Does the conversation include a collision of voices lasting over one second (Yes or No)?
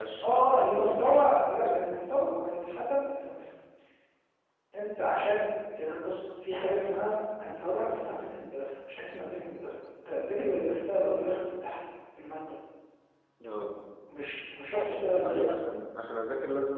Yes